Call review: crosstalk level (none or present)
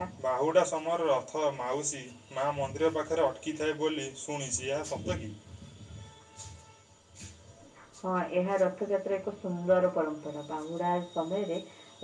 none